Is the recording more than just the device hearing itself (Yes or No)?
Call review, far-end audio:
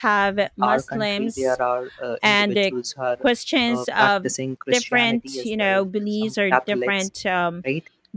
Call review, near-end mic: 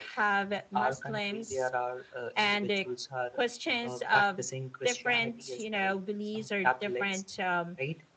No